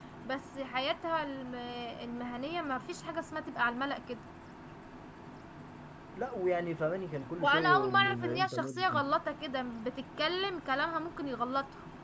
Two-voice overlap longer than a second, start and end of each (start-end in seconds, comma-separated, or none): 7.4-9.0